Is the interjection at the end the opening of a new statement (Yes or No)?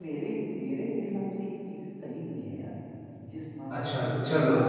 Yes